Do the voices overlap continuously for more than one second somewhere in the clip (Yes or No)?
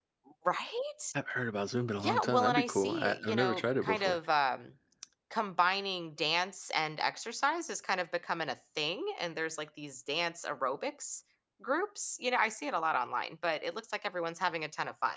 Yes